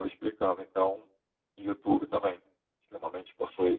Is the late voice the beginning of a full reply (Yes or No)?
Yes